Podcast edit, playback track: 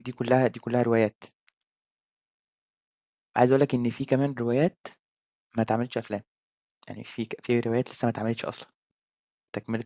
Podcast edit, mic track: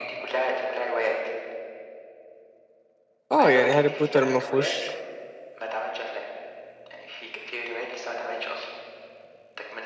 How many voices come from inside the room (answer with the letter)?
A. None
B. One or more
B